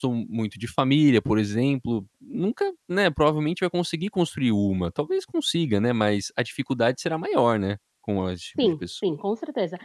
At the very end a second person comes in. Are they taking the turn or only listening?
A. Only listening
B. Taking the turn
B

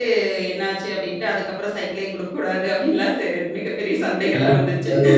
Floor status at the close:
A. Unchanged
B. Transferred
B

